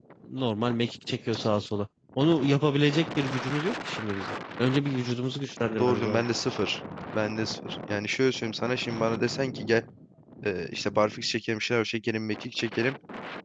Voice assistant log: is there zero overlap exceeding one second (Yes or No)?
Yes